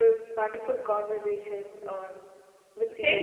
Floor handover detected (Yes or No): Yes